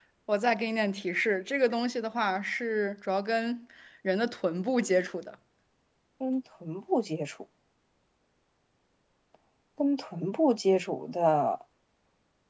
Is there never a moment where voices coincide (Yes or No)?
Yes